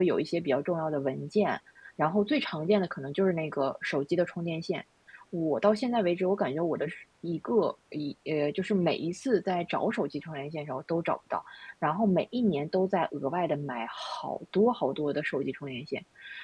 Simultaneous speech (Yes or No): No